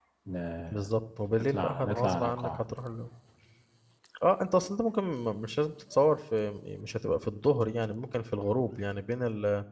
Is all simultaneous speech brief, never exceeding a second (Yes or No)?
No